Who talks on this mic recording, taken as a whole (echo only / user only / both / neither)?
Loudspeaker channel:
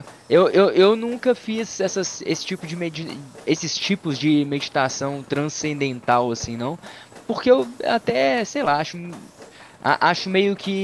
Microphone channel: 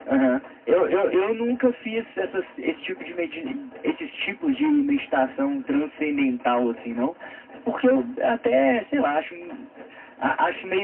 echo only